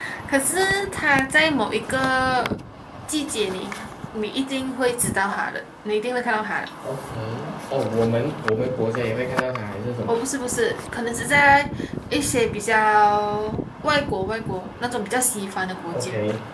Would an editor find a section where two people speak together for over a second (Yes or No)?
No